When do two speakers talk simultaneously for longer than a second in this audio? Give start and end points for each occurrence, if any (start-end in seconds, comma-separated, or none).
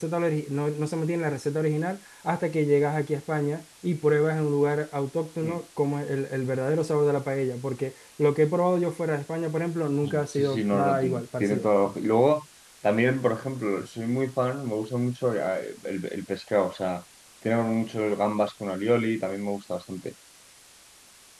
10.0-11.6